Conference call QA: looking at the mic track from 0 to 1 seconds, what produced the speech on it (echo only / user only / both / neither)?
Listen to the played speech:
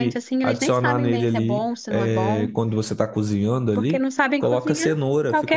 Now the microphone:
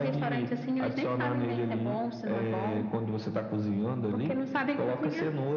echo only